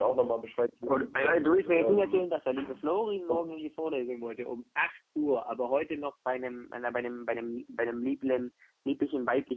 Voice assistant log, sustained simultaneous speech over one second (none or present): present